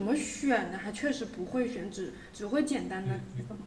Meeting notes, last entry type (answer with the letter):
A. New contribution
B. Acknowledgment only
A